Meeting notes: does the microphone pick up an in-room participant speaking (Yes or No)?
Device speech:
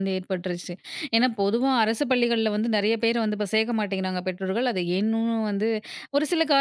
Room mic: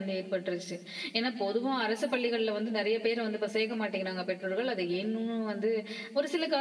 No